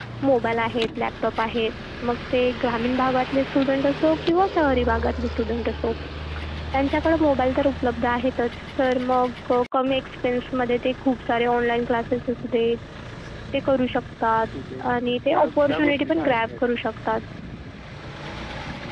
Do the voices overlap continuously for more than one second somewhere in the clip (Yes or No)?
Yes